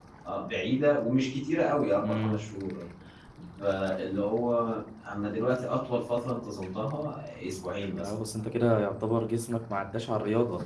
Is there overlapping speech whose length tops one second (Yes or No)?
No